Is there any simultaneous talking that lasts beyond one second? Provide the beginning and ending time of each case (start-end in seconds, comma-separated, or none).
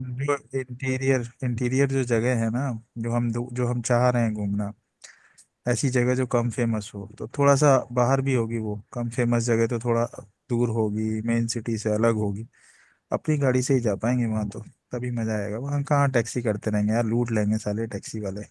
none